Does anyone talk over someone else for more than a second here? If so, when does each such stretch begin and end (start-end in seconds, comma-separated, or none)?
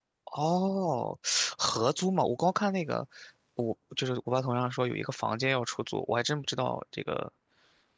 none